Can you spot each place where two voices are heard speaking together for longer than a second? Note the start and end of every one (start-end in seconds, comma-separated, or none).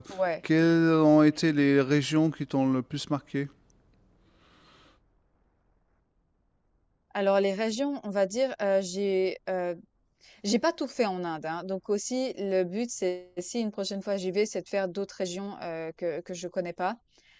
none